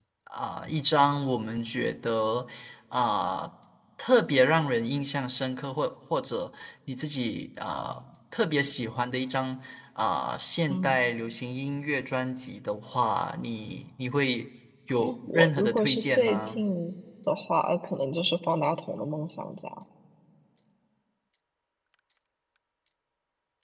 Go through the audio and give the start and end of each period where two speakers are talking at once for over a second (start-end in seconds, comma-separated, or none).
15.0-16.6